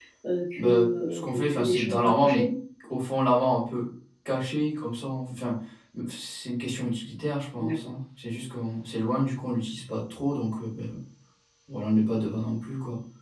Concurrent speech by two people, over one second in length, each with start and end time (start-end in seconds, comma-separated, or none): 0.6-2.4